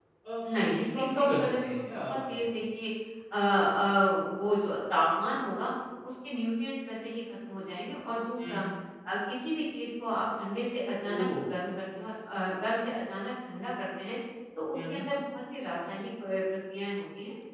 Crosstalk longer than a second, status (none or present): present